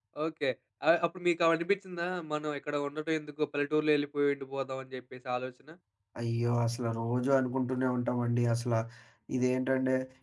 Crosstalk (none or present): none